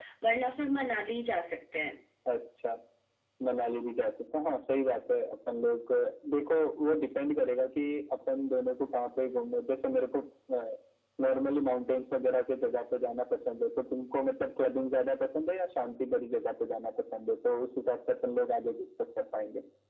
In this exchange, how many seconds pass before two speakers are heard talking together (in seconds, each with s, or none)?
none